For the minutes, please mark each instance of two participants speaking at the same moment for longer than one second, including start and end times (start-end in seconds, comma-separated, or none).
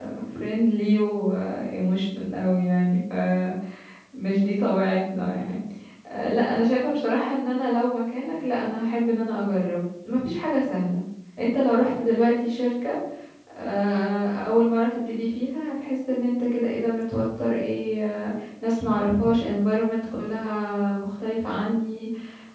none